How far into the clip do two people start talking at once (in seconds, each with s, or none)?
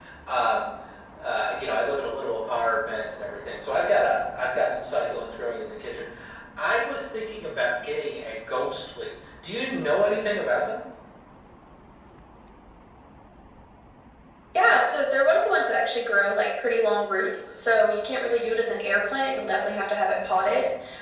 none